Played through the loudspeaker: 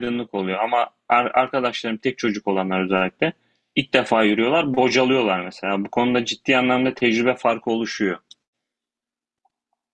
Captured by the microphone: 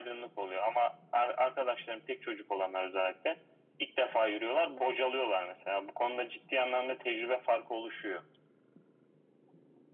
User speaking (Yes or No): No